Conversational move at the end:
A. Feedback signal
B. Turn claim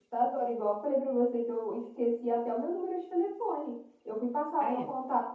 A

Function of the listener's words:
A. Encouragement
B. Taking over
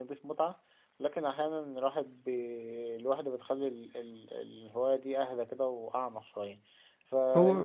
A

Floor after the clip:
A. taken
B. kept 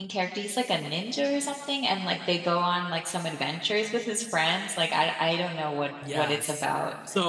A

